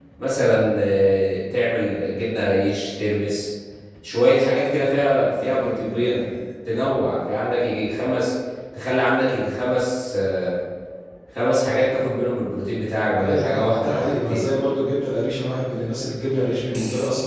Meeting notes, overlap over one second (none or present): present